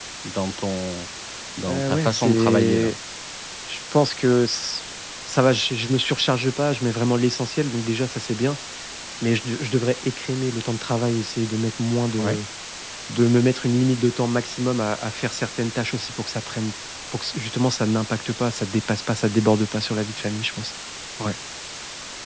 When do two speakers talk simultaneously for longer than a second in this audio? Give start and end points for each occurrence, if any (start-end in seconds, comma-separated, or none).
1.7-2.9